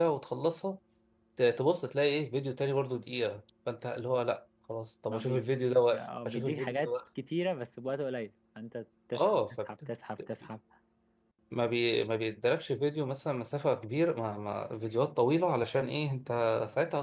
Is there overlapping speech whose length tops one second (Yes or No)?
Yes